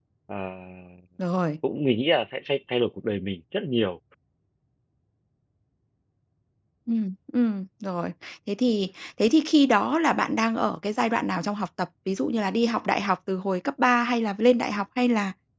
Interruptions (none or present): none